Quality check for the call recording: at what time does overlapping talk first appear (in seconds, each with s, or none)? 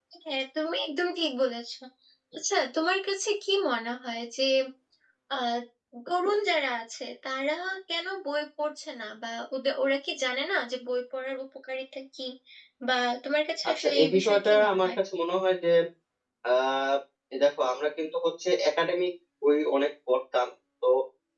13.7 s